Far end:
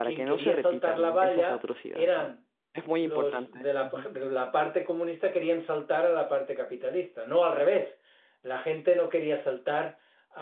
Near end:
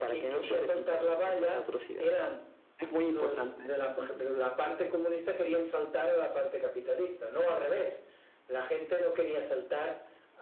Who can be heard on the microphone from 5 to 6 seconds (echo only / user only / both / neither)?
echo only